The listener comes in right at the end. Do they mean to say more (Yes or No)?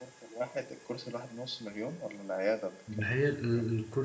Yes